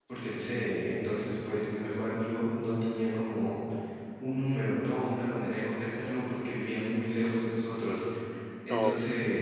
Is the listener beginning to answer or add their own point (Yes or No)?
No